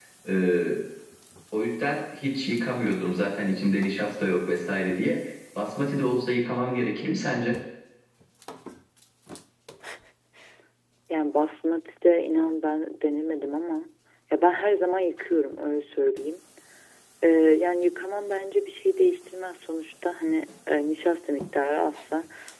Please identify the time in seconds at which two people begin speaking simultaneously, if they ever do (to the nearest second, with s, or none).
none